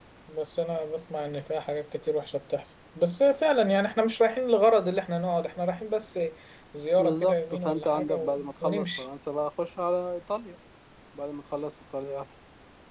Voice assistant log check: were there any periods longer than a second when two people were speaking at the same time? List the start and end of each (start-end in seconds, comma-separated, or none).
7.0-9.0